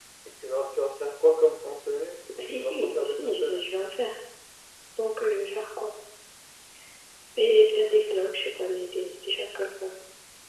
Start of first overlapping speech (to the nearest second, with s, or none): 2 s